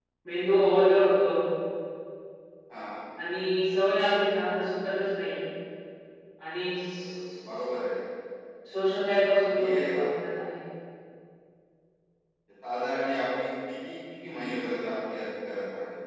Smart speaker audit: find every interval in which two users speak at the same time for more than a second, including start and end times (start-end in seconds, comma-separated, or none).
none